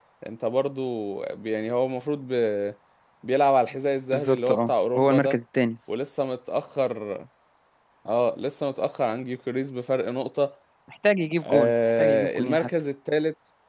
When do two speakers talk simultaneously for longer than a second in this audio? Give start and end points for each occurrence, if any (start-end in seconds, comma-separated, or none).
4.1-5.4, 11.4-12.7